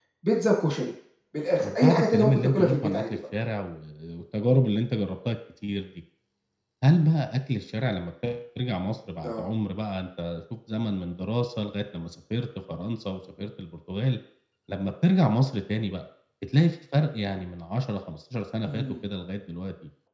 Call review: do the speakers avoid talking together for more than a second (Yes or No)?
No